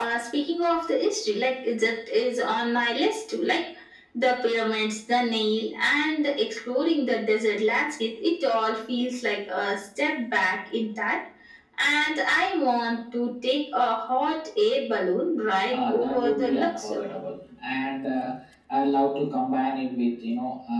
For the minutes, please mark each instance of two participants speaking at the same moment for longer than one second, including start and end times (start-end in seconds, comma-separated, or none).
15.7-17.0